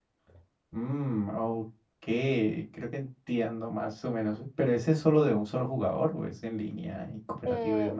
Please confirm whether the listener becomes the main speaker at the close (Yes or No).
Yes